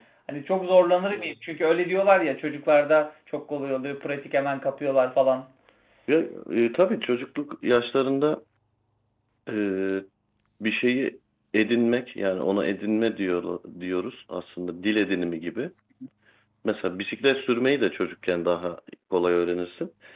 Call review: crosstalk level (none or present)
none